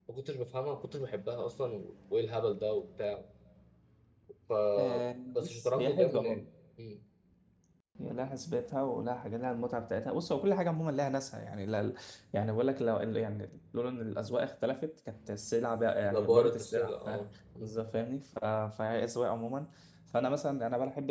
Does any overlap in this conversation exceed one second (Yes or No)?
Yes